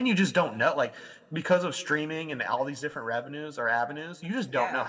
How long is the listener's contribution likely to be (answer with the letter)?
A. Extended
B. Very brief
B